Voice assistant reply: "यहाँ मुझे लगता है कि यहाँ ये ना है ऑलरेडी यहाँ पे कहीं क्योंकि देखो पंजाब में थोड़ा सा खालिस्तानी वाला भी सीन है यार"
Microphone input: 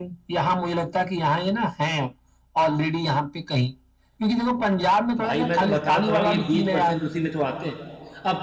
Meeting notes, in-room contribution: present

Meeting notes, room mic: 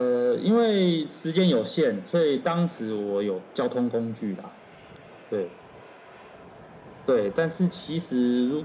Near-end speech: none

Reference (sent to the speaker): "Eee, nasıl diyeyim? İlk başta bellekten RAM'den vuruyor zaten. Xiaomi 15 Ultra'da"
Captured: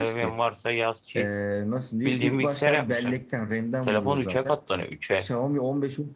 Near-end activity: present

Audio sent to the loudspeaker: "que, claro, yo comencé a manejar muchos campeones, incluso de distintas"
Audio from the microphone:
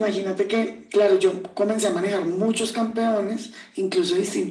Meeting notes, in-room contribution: none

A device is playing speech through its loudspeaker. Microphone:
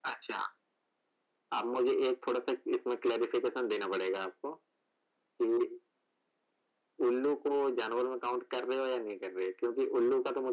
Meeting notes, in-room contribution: none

